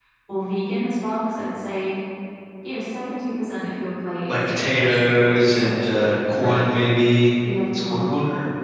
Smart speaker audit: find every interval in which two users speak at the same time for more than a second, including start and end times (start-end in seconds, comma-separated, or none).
4.3-6.8